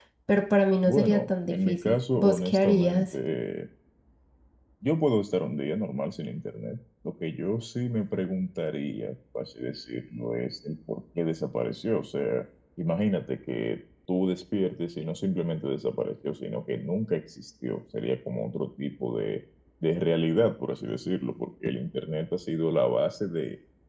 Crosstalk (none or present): present